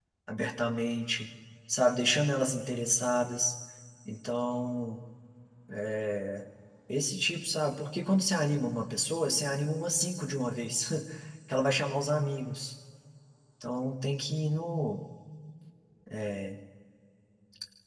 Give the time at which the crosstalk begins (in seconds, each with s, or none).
none